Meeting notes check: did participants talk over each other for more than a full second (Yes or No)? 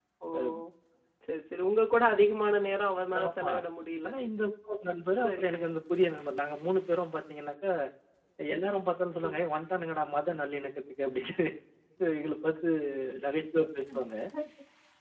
No